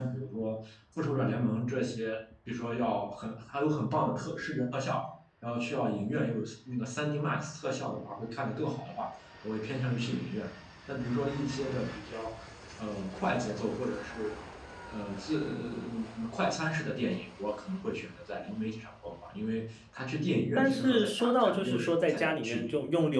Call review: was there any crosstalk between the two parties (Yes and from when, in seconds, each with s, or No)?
Yes, from 20.6 s